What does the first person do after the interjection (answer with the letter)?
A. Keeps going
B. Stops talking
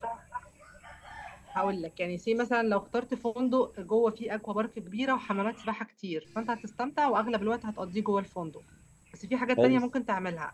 A